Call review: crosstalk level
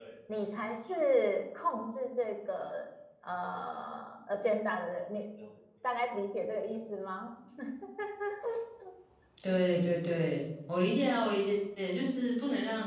none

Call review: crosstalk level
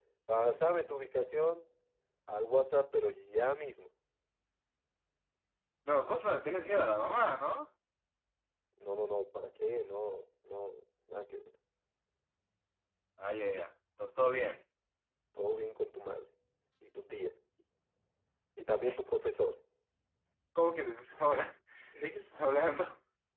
none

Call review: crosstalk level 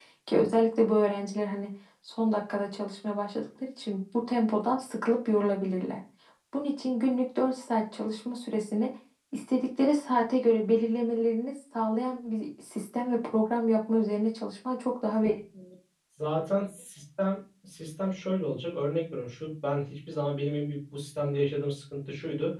none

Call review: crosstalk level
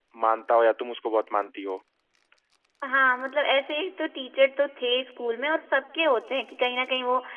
none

